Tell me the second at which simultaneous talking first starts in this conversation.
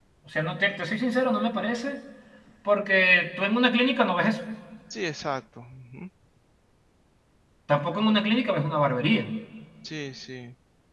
none

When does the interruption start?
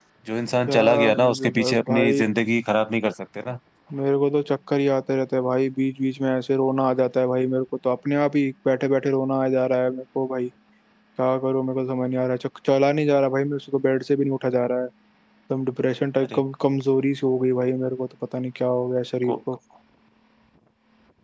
0.7 s

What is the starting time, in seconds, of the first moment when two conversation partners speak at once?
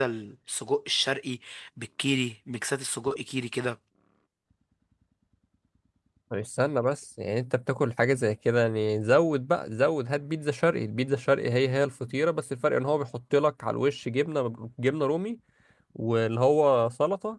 none

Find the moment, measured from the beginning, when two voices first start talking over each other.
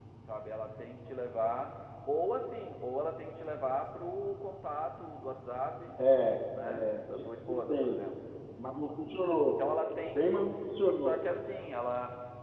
6.6 s

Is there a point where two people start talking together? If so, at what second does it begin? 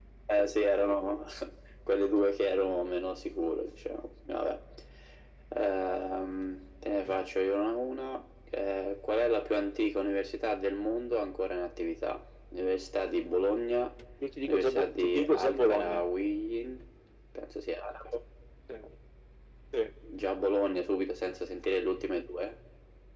14.4 s

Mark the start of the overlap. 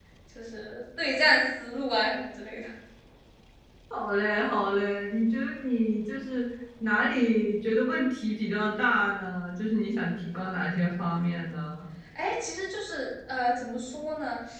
none

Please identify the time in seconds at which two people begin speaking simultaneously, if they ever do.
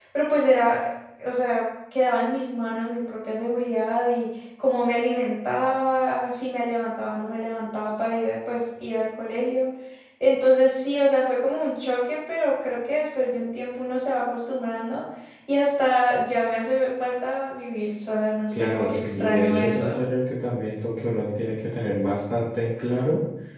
18.5 s

